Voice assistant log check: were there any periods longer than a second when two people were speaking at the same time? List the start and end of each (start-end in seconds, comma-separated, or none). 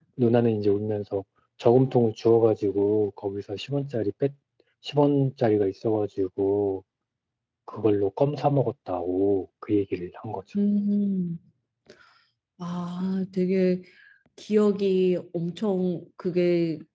none